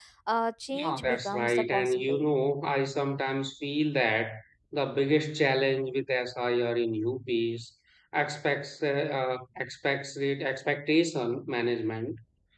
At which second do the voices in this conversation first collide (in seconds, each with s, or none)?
0.7 s